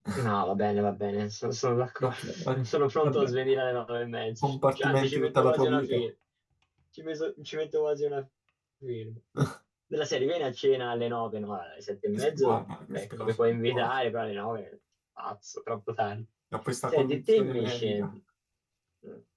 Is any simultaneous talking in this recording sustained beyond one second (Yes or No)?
Yes